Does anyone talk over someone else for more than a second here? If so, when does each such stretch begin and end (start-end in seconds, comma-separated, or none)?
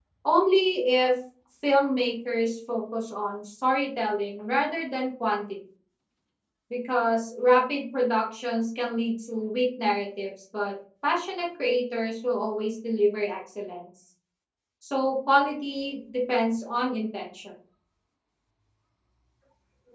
none